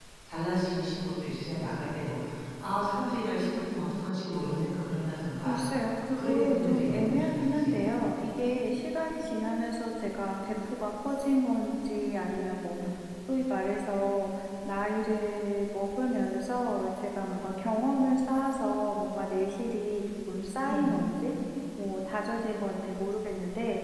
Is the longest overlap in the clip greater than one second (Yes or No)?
Yes